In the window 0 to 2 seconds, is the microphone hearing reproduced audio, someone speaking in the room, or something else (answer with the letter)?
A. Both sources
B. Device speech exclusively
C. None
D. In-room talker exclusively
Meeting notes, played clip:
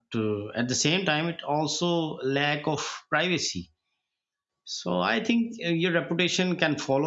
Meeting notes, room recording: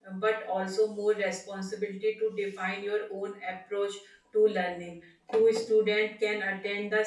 D